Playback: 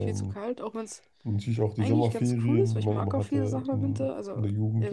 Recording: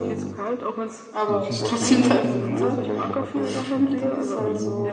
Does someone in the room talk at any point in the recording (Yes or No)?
Yes